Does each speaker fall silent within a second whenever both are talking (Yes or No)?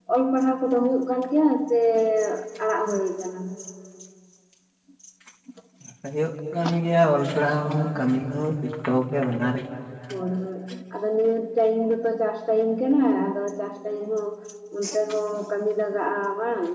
Yes